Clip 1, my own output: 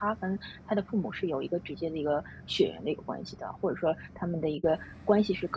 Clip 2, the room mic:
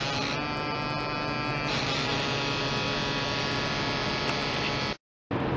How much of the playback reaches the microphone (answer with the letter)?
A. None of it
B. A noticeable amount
A